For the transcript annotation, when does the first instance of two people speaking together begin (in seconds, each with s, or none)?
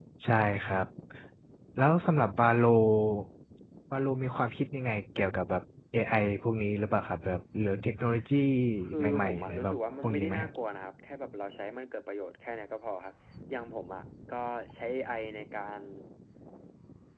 9.0 s